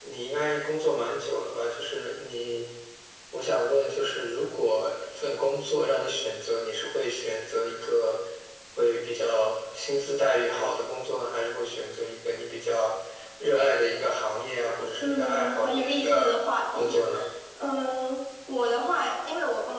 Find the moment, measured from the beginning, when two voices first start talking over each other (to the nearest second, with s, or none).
15 s